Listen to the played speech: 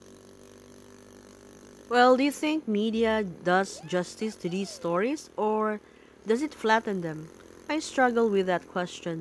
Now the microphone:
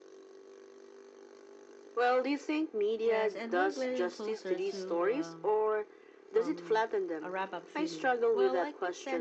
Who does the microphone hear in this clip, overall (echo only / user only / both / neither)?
both